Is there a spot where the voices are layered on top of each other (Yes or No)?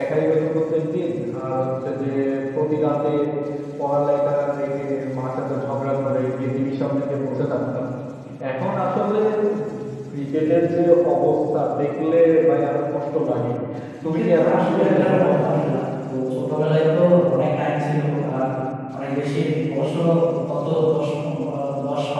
Yes